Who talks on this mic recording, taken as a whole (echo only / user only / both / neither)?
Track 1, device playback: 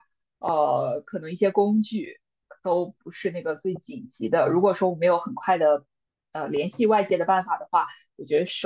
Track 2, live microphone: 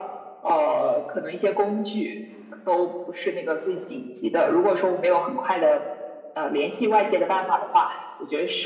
echo only